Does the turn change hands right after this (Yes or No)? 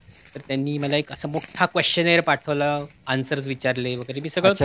Yes